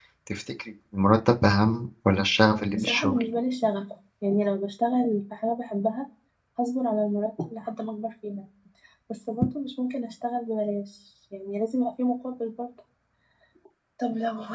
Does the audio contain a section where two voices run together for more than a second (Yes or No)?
No